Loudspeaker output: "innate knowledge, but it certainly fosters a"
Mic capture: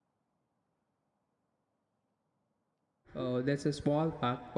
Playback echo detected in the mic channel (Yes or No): No